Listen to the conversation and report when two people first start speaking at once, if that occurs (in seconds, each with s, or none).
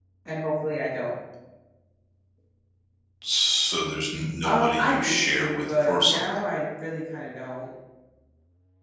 4.4 s